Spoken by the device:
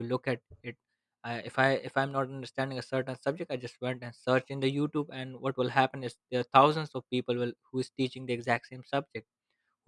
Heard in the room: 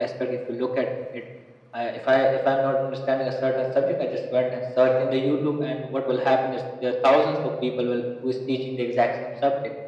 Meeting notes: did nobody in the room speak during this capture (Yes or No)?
Yes